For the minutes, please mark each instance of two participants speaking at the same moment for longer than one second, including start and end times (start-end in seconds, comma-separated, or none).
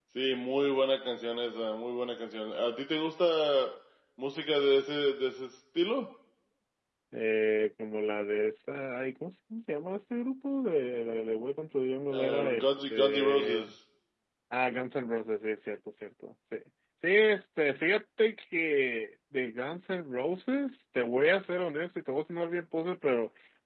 12.1-13.7